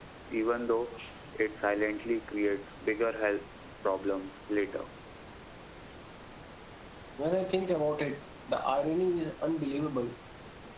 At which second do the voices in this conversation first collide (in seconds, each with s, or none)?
none